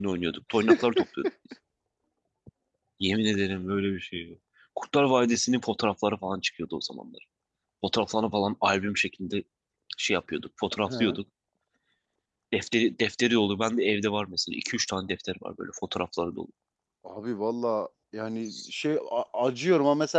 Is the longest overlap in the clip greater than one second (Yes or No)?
No